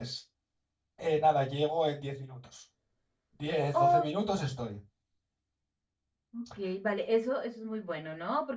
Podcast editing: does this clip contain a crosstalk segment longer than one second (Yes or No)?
No